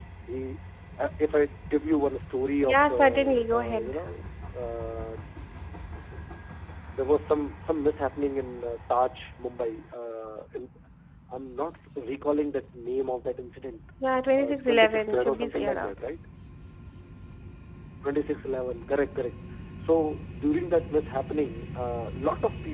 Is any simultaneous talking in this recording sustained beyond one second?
Yes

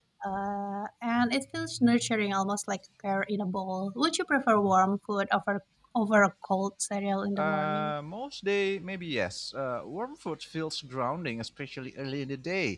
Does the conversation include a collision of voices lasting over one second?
No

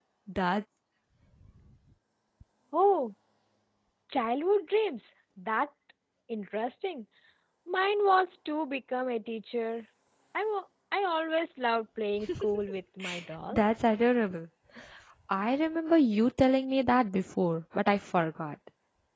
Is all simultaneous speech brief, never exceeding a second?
Yes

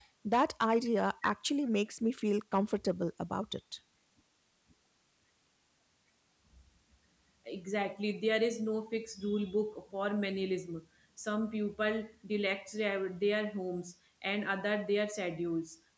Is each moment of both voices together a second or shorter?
Yes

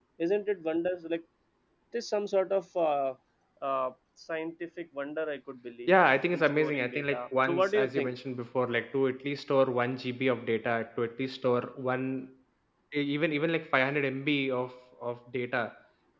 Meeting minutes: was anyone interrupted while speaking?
Yes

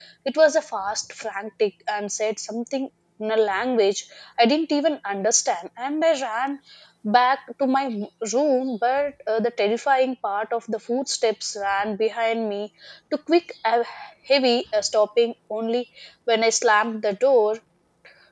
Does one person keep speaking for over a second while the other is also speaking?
No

